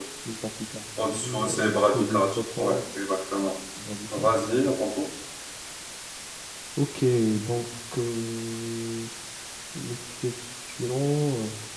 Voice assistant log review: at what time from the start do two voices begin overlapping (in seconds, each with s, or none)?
1.0 s